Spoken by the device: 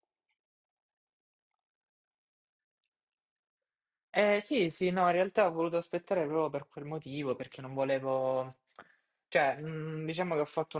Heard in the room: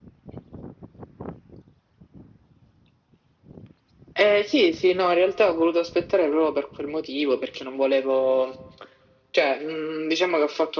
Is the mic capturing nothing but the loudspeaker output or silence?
Yes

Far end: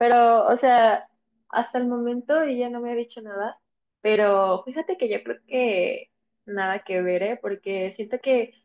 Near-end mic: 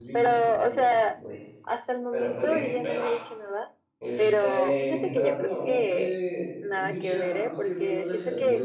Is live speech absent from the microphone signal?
No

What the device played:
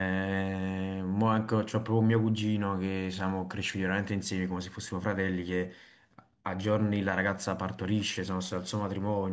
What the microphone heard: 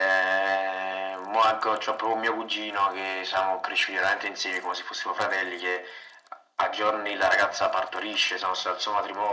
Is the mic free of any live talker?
Yes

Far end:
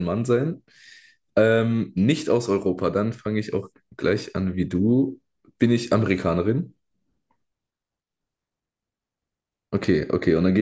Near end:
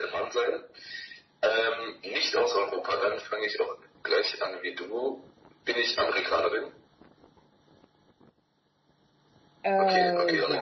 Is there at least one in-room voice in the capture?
Yes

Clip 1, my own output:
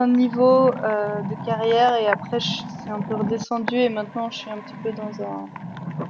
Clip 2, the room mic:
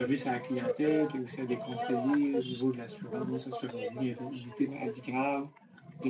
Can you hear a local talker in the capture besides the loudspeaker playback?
Yes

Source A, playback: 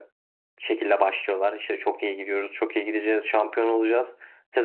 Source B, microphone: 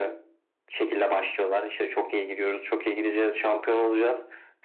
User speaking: No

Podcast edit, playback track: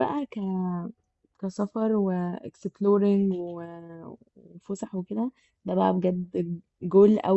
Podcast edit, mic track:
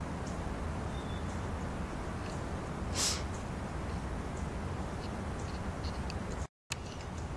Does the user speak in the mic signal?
No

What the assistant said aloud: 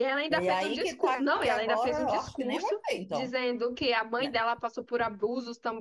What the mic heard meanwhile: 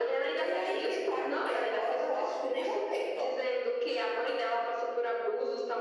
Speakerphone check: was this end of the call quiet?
Yes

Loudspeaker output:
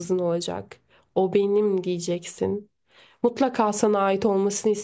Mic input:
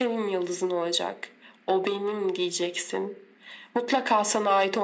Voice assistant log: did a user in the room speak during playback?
No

